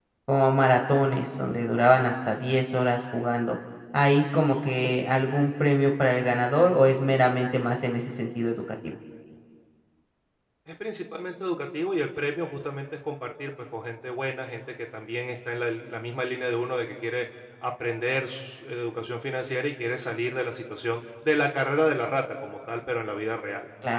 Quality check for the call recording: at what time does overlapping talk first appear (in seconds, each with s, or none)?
none